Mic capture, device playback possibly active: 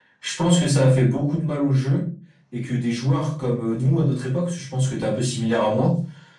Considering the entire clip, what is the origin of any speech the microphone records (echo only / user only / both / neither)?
echo only